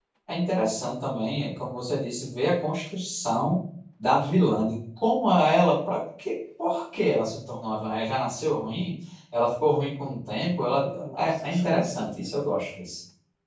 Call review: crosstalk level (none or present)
present